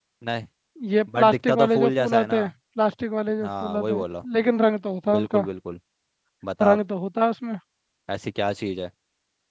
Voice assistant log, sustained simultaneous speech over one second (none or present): present